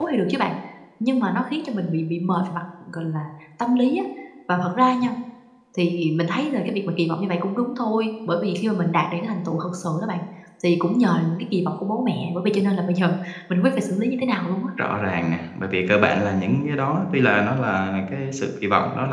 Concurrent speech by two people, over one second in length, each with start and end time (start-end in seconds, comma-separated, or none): none